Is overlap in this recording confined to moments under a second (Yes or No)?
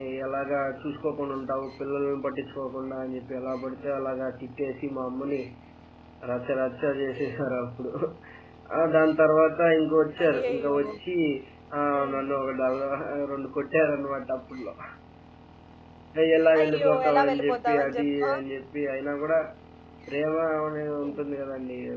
No